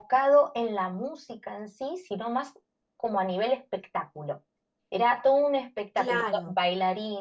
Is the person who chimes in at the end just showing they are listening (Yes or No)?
Yes